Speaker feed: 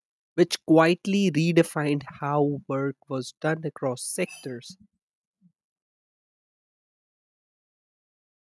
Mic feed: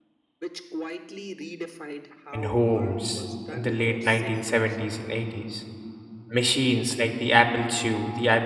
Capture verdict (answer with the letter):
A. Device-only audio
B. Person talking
B